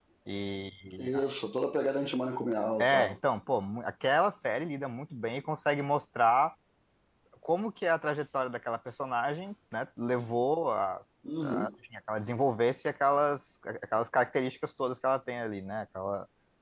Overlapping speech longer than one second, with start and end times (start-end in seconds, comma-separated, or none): none